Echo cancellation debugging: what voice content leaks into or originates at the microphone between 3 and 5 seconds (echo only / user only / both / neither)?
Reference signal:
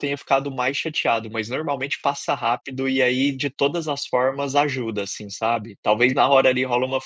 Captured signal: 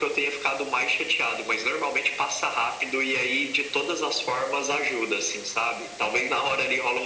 echo only